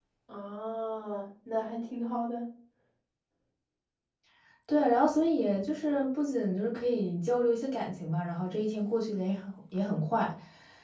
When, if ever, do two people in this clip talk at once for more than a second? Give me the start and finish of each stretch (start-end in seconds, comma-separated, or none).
none